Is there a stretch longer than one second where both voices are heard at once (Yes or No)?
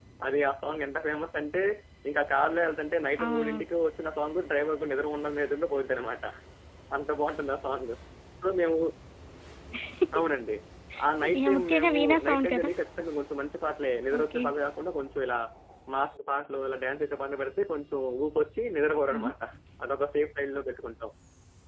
Yes